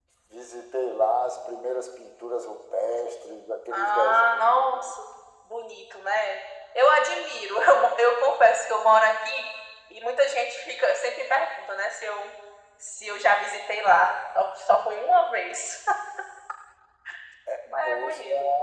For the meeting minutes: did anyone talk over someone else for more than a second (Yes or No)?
Yes